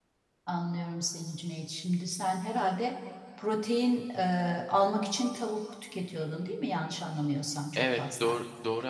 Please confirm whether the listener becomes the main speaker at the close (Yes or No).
Yes